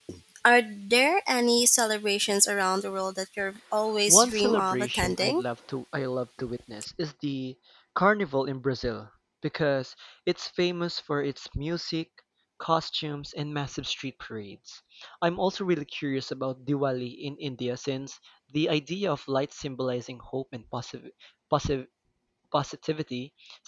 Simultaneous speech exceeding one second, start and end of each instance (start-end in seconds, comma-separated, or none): 4.1-5.4